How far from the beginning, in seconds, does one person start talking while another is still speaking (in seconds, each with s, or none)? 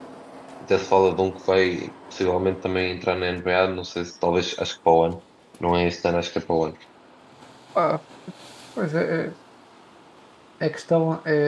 none